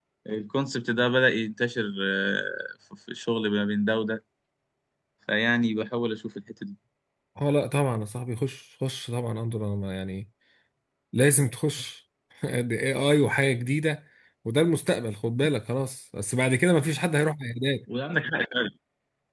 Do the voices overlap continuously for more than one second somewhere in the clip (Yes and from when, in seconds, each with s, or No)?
No